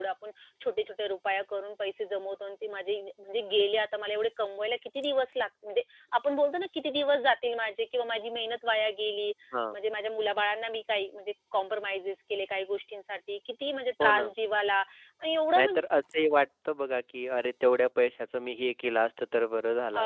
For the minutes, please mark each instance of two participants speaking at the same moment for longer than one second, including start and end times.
none

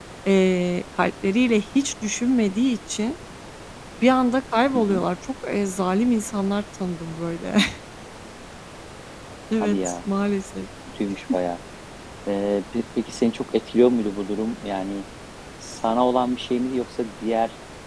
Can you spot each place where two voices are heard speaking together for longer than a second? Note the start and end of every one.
none

